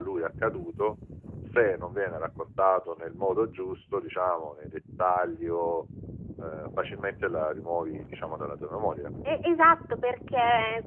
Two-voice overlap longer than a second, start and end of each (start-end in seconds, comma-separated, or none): none